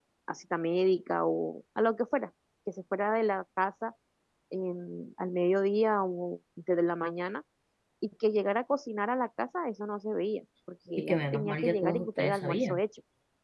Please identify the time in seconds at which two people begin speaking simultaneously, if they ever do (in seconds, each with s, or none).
11.0 s